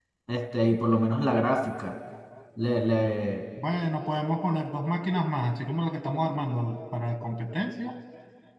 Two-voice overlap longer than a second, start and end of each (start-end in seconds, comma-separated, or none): none